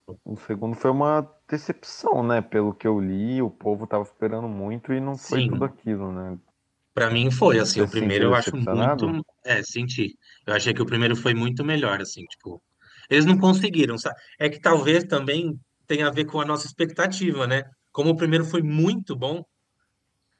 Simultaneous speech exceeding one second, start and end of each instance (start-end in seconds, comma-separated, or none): 7.8-9.1